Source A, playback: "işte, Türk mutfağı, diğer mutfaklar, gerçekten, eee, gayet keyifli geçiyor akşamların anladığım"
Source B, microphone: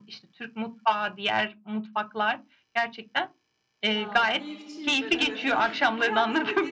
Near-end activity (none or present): present